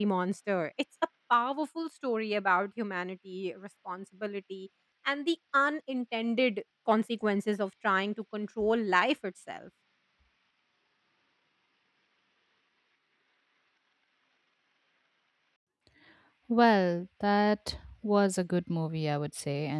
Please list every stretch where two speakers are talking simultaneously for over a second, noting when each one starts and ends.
none

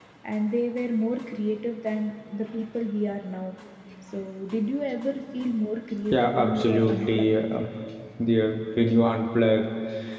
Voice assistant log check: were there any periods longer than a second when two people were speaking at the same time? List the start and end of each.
6.0-7.3

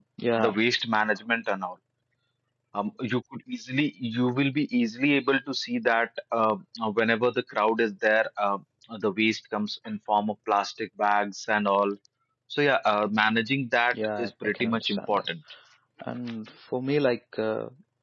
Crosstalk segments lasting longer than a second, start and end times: 13.9-15.2

